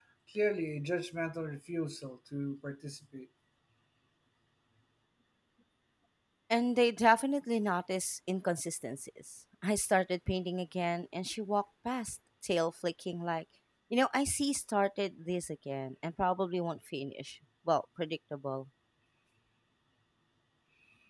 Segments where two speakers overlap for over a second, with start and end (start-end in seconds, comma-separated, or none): none